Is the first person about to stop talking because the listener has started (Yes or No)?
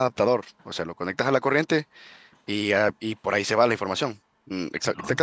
No